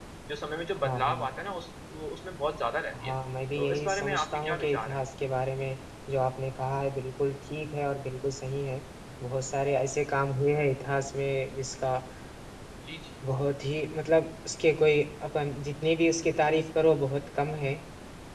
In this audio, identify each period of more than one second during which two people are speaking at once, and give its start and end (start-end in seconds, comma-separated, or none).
3.5-5.0